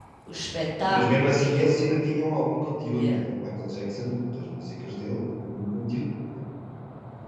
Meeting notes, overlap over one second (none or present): present